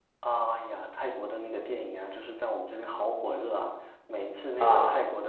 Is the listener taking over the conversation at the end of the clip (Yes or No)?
No